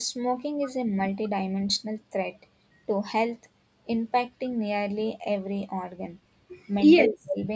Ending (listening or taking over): taking over